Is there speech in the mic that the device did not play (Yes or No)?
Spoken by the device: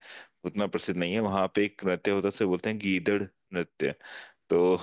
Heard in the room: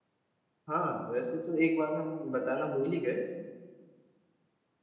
Yes